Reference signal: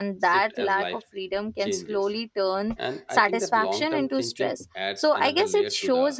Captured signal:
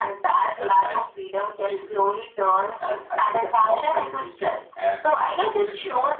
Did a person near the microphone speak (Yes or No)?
No